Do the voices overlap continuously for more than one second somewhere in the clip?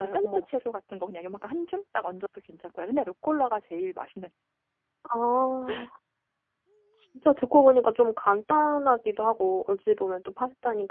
No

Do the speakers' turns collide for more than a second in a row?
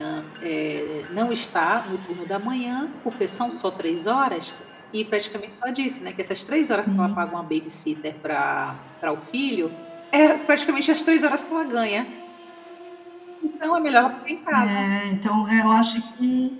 No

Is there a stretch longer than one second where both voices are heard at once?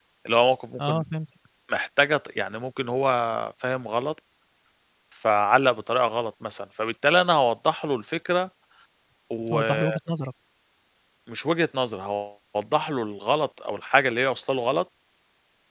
No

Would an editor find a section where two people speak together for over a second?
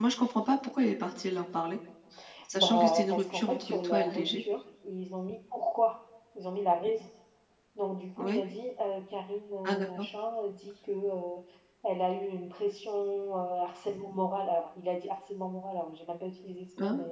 Yes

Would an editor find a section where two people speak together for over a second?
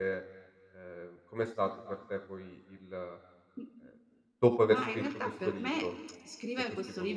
Yes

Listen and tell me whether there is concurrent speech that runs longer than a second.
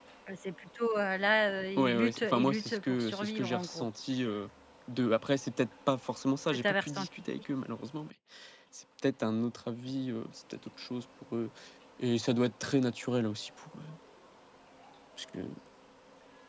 Yes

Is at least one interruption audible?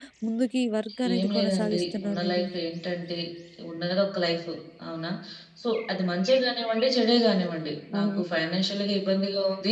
Yes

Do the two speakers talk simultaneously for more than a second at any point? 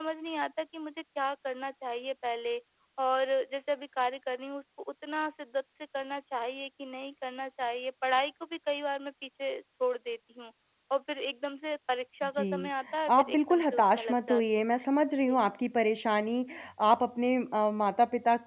Yes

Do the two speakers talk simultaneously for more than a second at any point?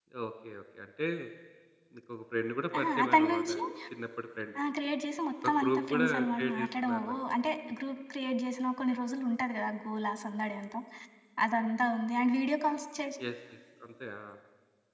Yes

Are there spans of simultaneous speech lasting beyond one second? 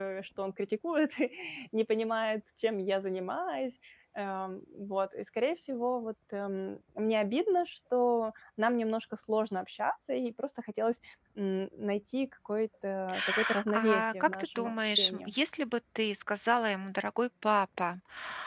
Yes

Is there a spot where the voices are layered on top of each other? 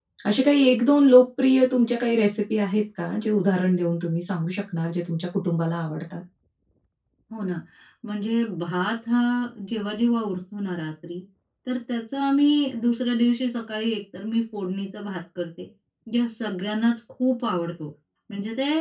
No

